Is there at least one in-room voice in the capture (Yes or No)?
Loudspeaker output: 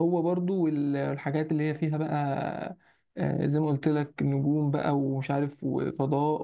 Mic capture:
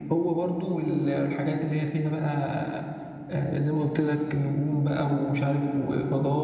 No